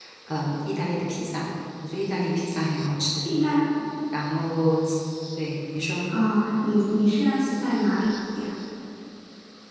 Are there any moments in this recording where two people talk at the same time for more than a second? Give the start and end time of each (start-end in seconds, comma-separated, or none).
none